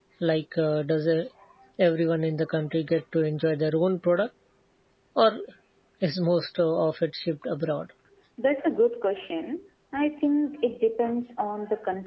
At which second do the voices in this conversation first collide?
none

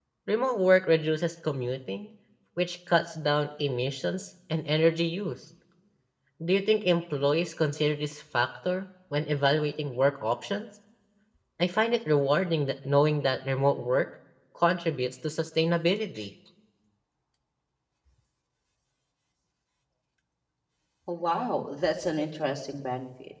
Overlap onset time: none

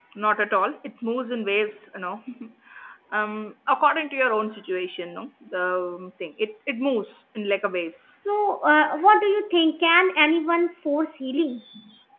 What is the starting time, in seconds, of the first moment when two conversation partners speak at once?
none

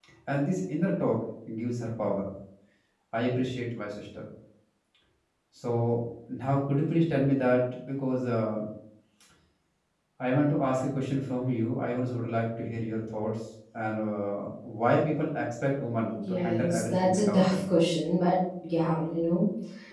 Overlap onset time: 16.1 s

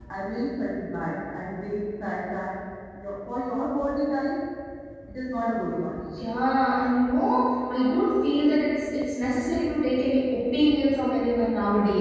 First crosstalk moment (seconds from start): none

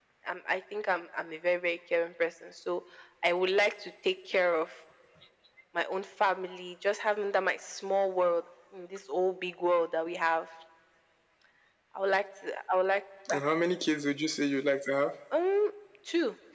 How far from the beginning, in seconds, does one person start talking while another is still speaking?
none

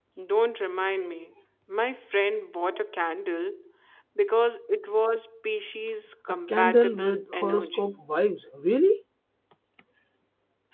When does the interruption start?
6.5 s

